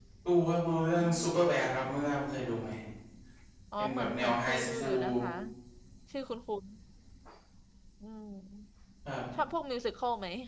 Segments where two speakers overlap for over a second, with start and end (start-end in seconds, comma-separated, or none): 3.8-5.0